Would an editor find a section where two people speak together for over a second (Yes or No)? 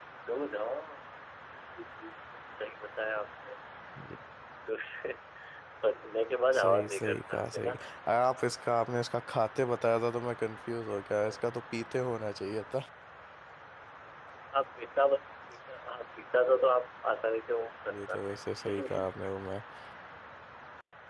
Yes